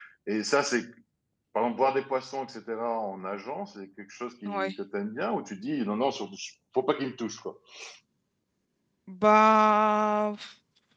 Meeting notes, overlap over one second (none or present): none